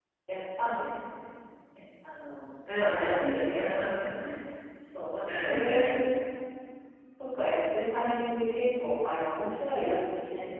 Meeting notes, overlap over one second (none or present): present